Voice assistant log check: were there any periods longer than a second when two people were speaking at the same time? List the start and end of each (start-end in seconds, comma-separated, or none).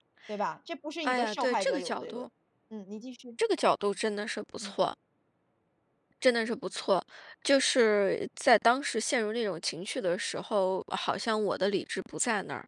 1.1-2.3